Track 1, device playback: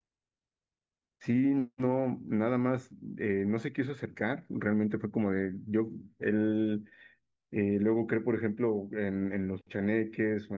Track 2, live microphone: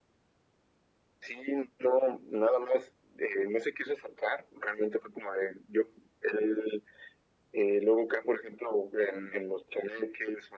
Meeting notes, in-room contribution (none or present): none